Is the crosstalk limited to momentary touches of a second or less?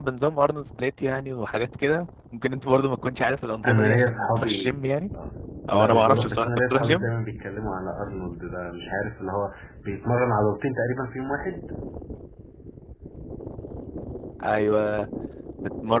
No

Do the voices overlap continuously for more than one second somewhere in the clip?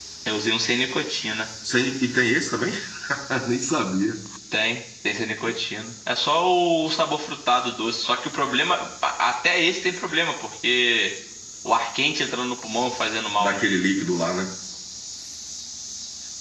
No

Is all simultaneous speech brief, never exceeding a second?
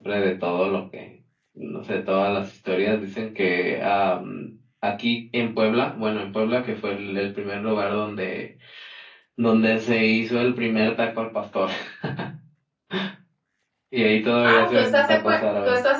No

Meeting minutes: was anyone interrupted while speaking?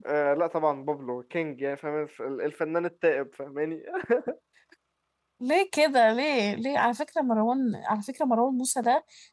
No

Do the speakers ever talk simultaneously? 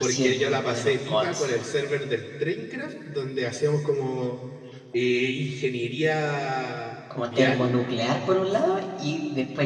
Yes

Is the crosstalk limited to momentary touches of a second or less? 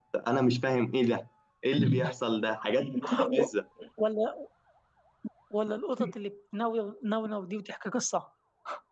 Yes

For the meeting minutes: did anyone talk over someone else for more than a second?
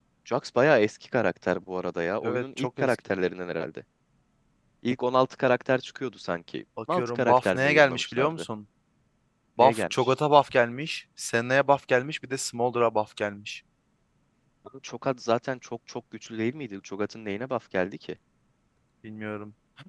Yes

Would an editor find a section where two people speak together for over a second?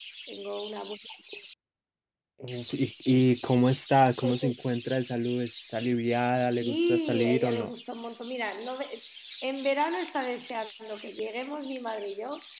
Yes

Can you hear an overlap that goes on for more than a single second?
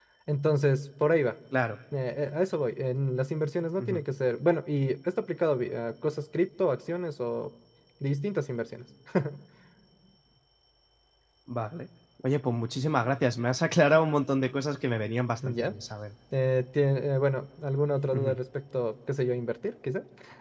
No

